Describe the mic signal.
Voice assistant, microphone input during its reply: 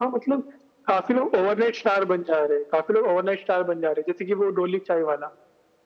echo only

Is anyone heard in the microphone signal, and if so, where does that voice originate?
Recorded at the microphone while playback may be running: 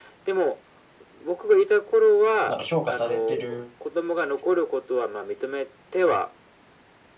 both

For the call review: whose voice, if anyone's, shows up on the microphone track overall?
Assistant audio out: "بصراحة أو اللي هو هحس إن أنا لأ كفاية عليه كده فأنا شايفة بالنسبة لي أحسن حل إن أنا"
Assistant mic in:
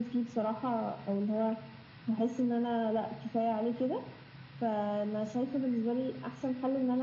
echo only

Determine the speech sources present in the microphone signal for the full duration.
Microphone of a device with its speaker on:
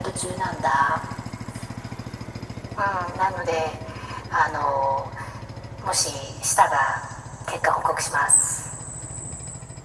echo only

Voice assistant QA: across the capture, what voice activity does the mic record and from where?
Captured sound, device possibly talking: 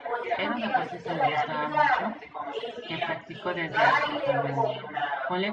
both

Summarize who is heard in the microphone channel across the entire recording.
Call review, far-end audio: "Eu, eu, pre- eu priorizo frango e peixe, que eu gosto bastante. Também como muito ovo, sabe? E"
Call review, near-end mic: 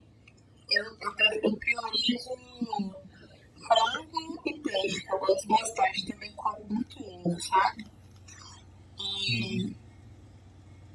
both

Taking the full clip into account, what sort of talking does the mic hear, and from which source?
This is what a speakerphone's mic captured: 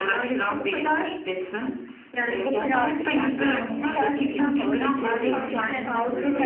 both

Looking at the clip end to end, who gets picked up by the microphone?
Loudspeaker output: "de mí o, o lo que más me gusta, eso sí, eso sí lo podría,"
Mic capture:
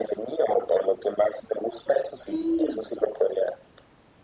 both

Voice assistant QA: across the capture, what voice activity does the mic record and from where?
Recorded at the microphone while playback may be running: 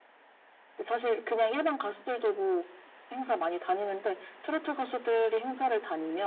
echo only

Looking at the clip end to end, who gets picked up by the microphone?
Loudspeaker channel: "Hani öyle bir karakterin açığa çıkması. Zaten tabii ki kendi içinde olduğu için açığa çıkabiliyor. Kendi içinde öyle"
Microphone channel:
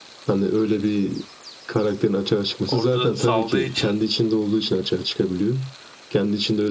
both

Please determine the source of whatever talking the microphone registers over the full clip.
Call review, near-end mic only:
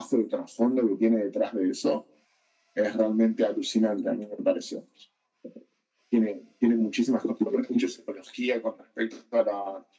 echo only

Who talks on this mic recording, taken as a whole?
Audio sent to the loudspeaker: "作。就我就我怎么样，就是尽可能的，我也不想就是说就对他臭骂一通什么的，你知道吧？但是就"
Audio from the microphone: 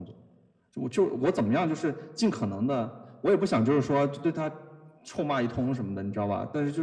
echo only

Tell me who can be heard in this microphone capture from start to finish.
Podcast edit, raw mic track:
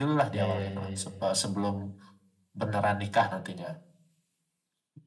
both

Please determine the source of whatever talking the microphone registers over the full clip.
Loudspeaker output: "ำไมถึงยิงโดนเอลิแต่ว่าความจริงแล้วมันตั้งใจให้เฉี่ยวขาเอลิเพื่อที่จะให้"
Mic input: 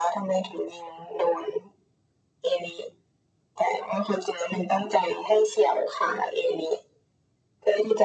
echo only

